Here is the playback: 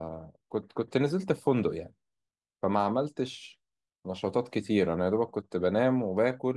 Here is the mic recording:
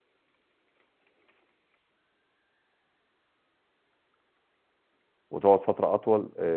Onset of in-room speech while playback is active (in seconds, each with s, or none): 5.3 s